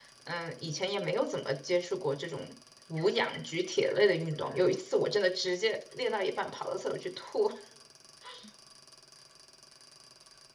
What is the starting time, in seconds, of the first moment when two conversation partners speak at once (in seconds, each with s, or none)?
none